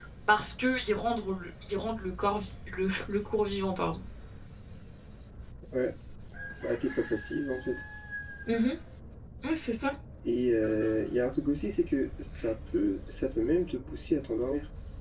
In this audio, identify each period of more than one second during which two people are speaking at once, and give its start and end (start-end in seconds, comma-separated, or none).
none